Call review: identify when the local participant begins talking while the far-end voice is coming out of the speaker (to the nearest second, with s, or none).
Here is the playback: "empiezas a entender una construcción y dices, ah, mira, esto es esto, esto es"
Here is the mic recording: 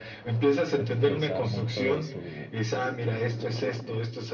1 s